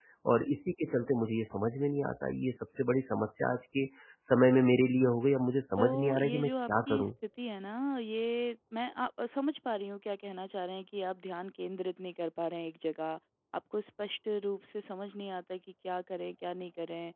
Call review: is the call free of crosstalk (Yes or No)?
No